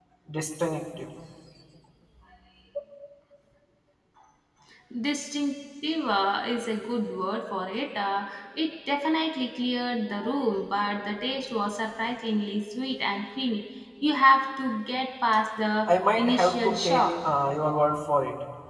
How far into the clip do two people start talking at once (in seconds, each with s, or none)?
15.9 s